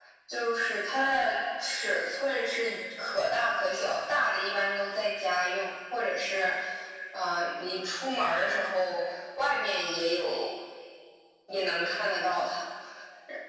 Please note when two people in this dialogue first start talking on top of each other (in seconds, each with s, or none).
none